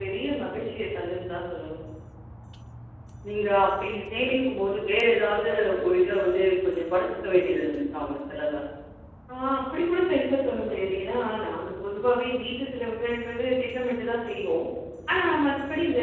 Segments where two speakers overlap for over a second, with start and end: none

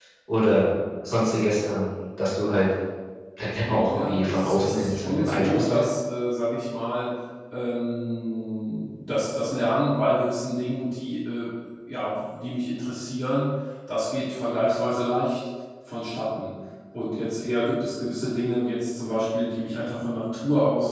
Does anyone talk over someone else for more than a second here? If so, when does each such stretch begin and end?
3.6-5.8

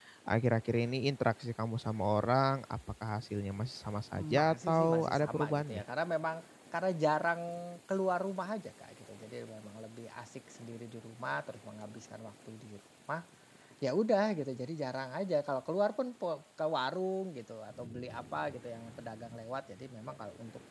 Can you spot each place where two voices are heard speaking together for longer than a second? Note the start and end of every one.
4.2-5.8

